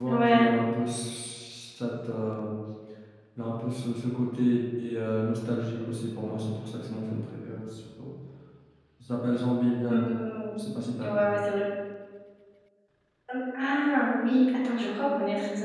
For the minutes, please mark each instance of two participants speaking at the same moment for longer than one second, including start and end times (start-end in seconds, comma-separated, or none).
none